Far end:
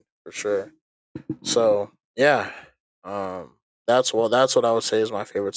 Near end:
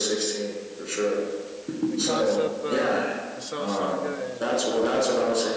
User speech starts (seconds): 1.9 s

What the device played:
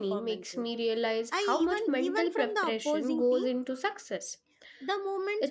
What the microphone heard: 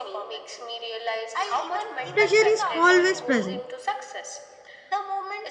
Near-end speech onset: 2.1 s

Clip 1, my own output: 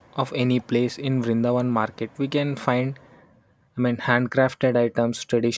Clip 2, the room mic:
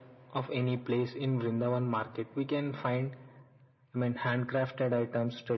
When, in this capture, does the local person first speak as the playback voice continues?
none

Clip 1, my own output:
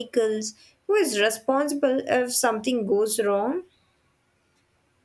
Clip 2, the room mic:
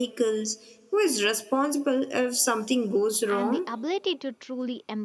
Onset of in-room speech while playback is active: 3.3 s

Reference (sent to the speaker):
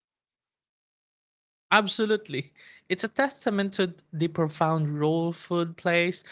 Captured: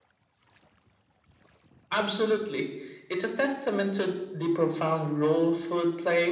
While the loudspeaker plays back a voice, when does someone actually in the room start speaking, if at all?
none

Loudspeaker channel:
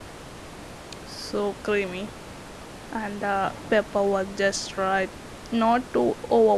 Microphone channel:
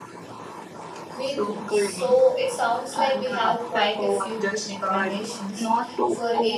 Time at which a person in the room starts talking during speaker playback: 1.1 s

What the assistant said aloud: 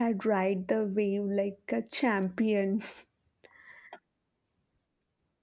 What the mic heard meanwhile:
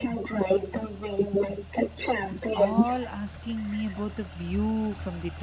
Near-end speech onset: 2.5 s

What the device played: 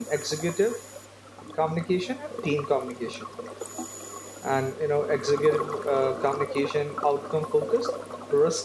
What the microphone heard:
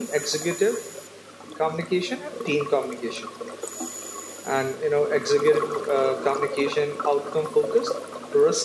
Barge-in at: none

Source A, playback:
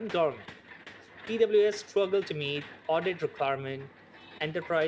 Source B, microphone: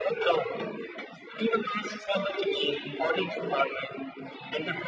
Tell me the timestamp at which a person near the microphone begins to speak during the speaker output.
none

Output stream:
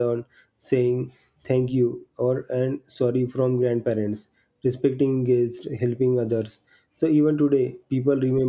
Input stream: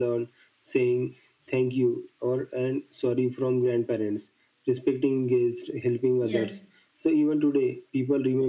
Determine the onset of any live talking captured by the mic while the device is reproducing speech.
6.2 s

